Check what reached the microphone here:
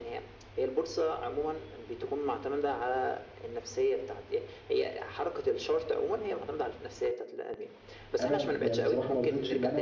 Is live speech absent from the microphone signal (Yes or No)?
No